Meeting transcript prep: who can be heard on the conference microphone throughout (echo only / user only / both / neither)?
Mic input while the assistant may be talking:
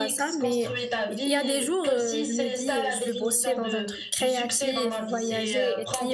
both